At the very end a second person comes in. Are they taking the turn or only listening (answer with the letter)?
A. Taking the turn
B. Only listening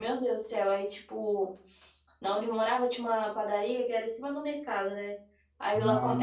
B